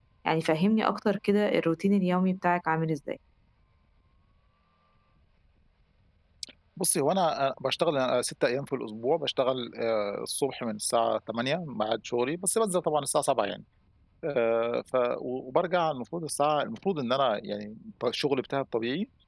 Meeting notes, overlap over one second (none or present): none